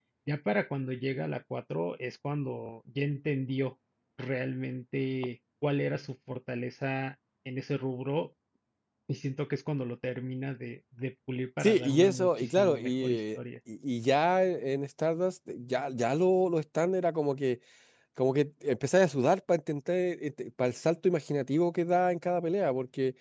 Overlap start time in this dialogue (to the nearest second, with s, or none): 12 s